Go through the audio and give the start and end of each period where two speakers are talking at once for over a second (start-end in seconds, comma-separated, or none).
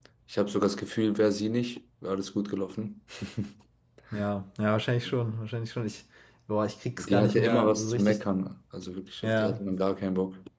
7.0-8.2